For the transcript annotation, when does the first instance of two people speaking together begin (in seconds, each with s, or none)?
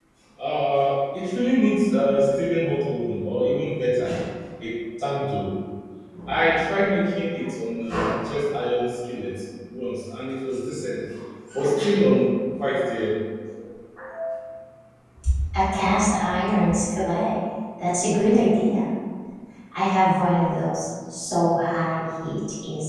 none